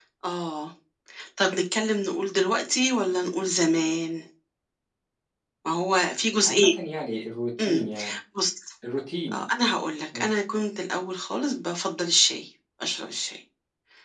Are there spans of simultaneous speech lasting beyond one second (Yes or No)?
No